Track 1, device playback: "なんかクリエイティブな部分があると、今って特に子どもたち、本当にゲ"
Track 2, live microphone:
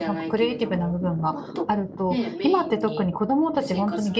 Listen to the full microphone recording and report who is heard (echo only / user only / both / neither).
both